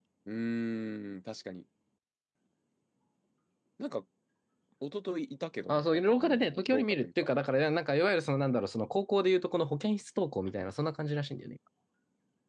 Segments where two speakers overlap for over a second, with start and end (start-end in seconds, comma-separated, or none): 5.7-7.1